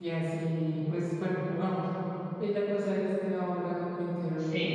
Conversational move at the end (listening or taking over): listening